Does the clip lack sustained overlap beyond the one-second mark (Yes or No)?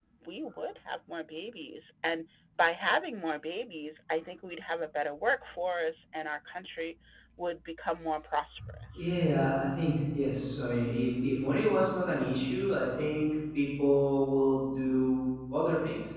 Yes